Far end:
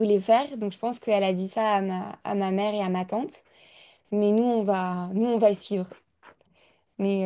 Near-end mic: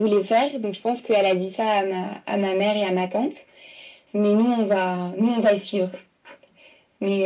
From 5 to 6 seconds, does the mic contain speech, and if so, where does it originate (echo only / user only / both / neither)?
echo only